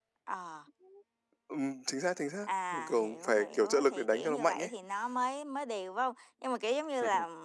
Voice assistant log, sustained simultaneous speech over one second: present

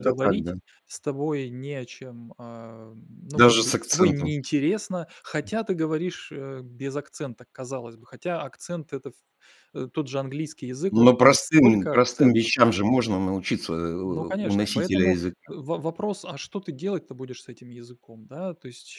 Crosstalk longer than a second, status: present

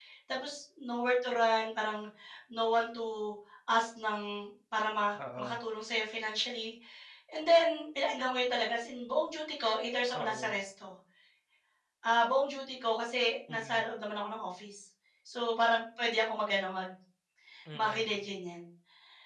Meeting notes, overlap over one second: none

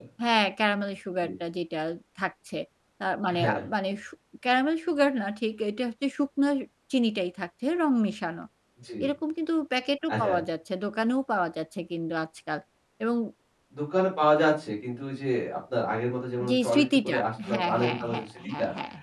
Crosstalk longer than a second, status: present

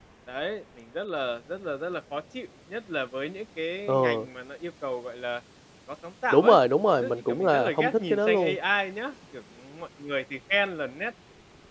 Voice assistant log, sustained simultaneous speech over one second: present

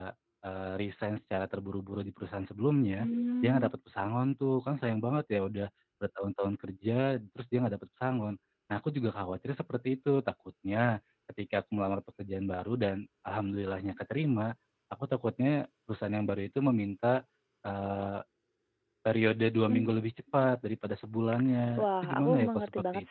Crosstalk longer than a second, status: present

